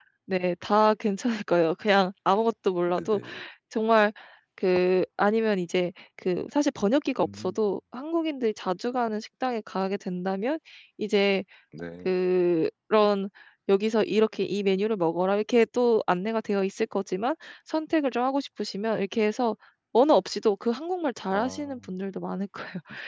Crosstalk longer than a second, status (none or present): none